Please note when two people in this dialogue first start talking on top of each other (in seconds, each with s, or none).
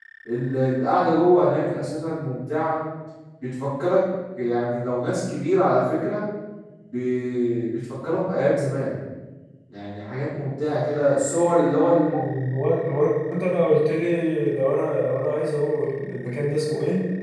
none